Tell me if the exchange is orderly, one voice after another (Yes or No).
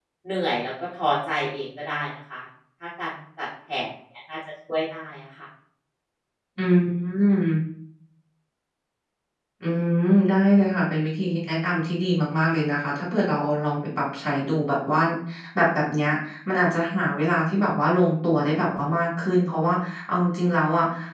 Yes